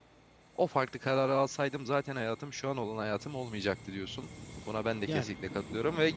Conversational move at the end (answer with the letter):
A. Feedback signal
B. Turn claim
A